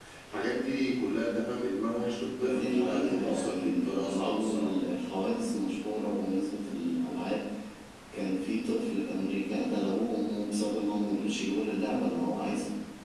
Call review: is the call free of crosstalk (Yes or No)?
No